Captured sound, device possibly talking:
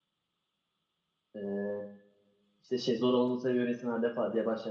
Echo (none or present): none